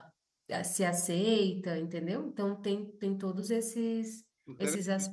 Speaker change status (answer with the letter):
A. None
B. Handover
B